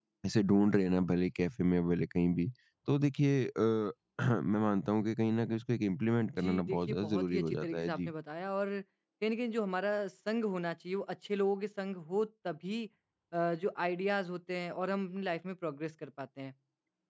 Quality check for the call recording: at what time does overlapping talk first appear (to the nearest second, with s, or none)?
6 s